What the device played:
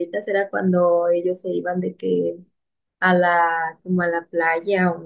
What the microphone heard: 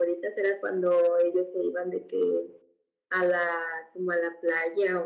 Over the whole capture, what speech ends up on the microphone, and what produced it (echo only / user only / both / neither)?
echo only